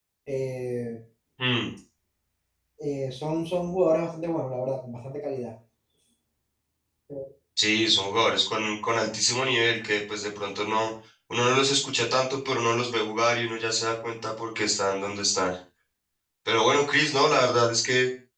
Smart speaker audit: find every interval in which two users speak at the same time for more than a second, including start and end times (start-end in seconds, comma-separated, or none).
none